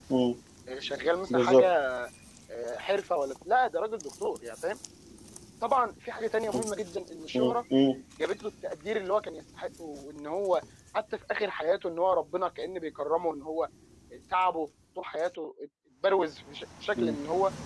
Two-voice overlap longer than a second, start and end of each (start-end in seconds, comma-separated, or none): none